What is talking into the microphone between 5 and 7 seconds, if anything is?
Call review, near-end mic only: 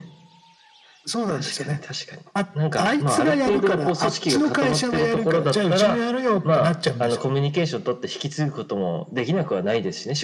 echo only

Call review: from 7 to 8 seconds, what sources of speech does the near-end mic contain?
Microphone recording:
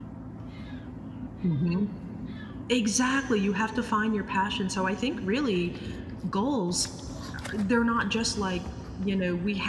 user only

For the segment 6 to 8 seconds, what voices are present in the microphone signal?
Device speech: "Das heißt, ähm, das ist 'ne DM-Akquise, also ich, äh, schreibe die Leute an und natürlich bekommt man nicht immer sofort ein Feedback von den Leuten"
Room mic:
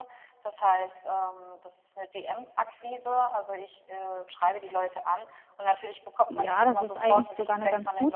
both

